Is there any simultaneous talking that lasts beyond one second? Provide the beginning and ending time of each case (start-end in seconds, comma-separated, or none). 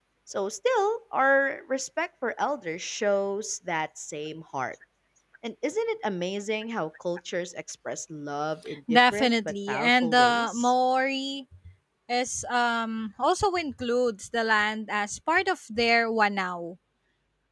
8.9-10.7